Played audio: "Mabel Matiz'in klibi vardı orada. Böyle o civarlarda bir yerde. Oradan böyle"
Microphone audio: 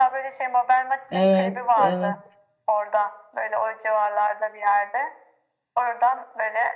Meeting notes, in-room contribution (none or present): present